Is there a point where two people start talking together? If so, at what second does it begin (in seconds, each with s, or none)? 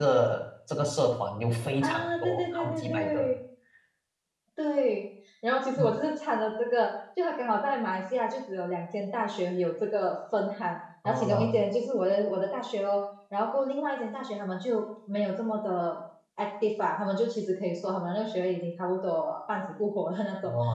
1.8 s